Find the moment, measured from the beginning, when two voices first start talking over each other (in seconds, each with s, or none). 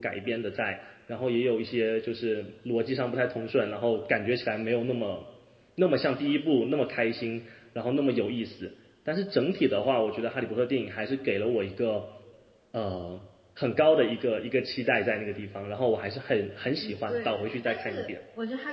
16.8 s